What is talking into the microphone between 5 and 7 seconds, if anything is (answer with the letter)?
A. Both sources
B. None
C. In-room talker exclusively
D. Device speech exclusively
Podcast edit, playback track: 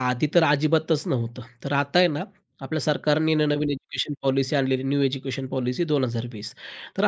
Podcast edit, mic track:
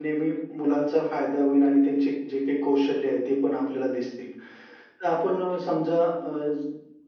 C